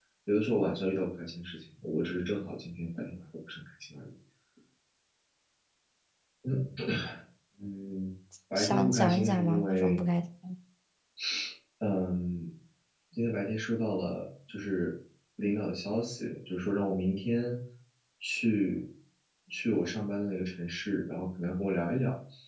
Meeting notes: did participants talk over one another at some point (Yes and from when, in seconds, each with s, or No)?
Yes, from 8.6 s